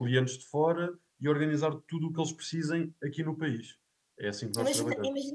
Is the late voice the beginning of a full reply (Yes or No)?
Yes